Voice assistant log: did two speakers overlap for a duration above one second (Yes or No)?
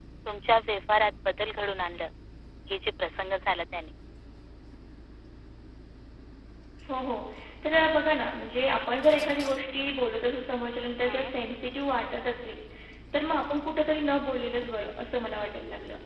No